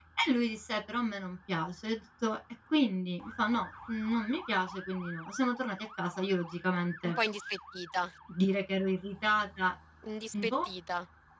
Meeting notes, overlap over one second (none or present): none